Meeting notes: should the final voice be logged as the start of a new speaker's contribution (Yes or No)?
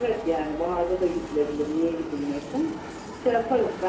No